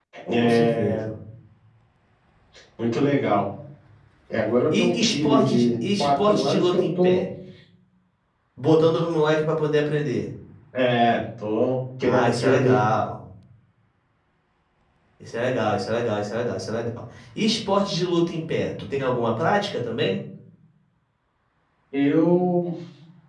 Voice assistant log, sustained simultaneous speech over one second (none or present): present